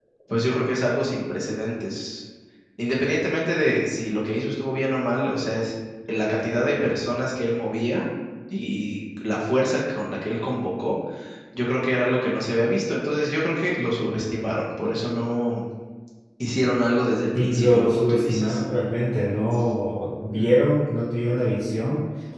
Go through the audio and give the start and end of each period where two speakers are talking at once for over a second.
17.4-18.6

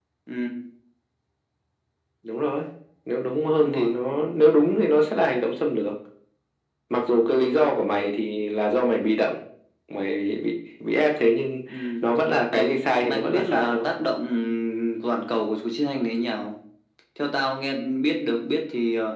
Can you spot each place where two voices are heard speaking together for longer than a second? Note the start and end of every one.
12.5-13.9

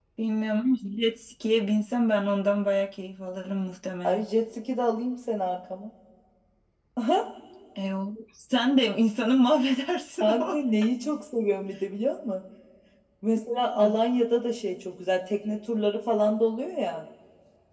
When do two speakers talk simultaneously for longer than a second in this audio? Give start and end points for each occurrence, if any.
none

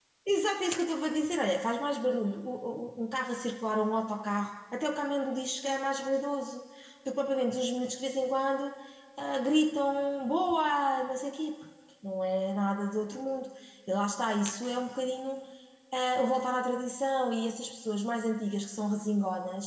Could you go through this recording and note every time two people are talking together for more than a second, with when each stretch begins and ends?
none

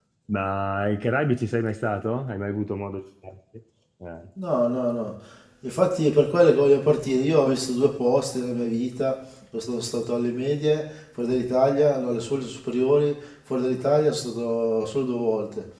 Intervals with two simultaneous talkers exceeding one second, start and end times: none

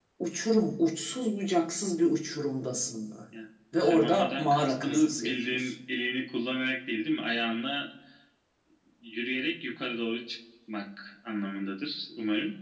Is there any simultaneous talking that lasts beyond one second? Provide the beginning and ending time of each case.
3.8-5.7

